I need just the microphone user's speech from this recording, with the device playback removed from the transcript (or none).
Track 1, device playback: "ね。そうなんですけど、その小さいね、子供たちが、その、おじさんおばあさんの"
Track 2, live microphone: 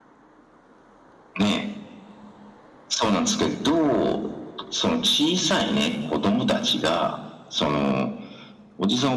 none